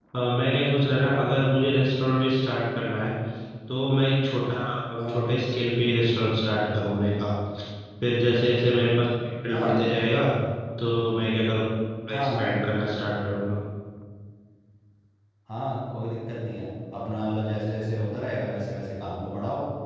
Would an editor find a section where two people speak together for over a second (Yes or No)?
No